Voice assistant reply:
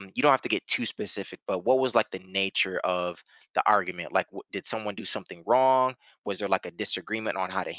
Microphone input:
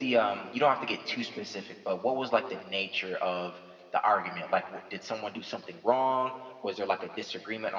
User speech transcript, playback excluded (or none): none